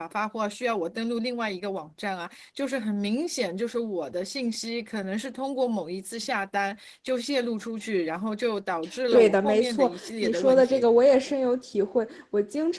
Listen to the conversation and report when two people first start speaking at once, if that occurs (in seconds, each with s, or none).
9.1 s